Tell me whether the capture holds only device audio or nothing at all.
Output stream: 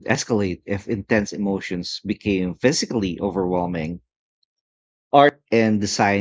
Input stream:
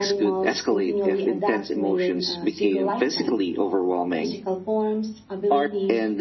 No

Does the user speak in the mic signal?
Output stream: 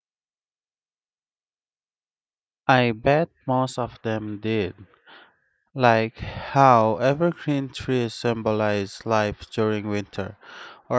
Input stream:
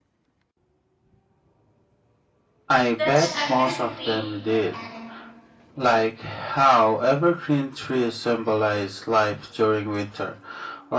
Yes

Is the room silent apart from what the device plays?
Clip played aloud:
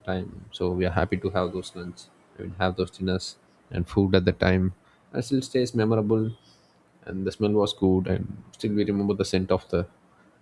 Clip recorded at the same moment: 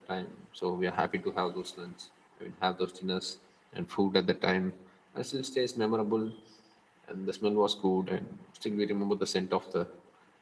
Yes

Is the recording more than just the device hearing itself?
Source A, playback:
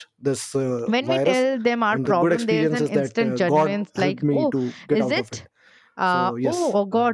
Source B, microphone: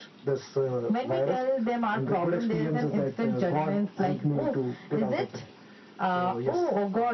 No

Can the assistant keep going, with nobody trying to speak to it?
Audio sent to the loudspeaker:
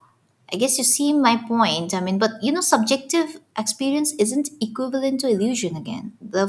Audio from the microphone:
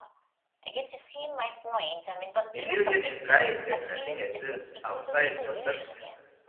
No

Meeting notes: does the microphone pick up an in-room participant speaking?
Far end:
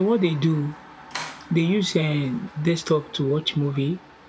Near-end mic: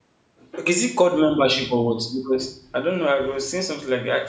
Yes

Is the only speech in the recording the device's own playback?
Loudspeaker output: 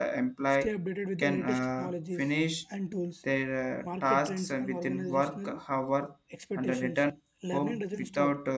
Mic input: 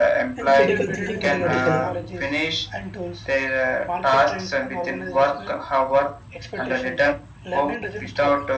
No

